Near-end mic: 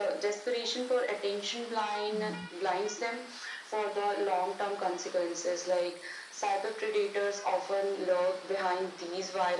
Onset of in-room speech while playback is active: 2 s

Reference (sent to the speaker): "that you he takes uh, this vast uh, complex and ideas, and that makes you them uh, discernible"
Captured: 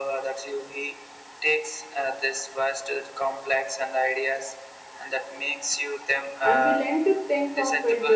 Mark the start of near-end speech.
6 s

